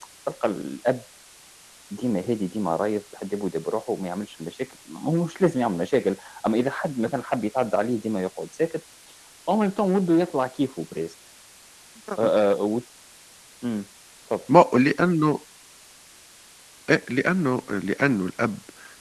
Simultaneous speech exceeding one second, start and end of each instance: none

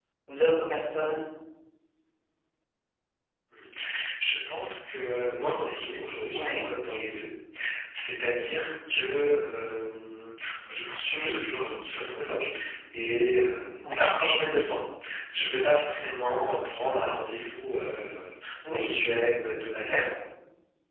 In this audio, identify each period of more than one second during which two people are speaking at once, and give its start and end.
none

